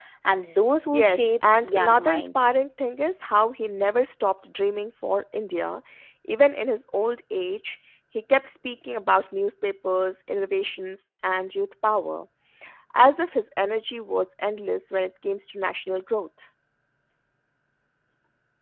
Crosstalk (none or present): present